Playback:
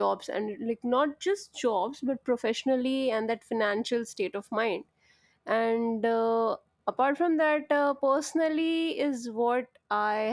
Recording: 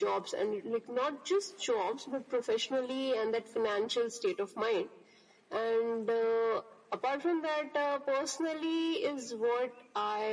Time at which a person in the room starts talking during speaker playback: none

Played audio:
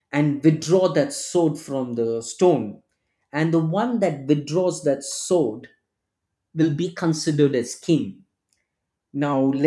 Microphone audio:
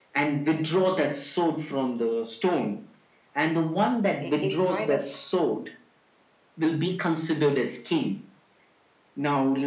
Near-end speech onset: 4.2 s

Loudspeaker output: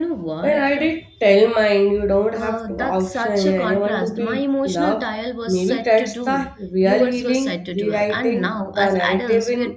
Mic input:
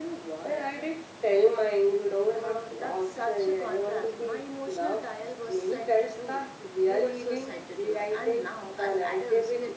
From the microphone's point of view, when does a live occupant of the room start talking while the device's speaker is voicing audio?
none

